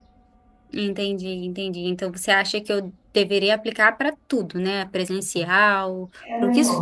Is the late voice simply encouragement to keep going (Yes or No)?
No